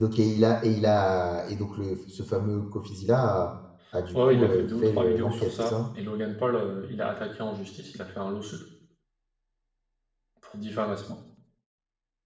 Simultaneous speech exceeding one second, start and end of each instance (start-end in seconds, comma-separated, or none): 4.1-5.8